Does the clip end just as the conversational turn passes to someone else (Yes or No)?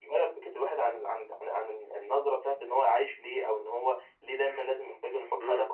Yes